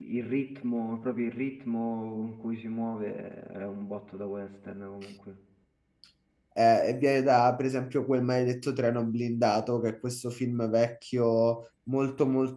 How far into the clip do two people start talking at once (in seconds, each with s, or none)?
none